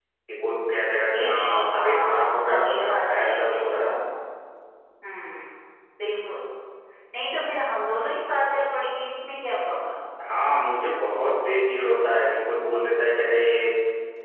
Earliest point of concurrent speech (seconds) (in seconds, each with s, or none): 1.1 s